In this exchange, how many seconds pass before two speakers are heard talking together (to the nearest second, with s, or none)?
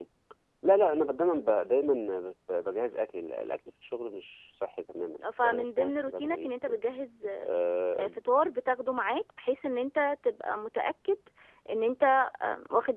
5 s